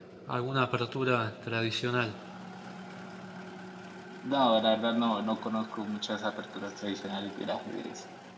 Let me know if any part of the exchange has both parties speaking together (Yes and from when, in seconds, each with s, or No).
No